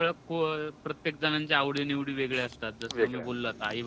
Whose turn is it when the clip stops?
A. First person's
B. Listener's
A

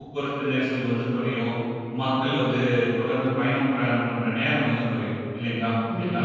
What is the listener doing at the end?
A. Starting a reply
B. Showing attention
B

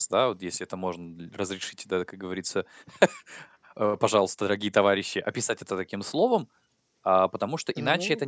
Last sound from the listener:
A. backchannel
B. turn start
A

